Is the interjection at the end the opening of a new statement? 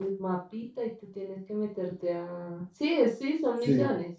Yes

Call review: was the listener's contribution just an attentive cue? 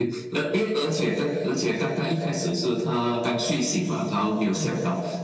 Yes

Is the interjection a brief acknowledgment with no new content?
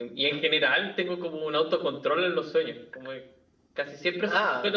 Yes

